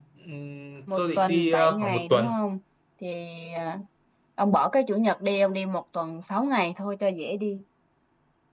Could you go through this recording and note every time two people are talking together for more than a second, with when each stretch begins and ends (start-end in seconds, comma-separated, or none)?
1.0-2.3